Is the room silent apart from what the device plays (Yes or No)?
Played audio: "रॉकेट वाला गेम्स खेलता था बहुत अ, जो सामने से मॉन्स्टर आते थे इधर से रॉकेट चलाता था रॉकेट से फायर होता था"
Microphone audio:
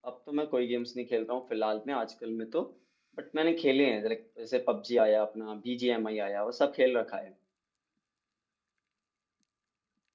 No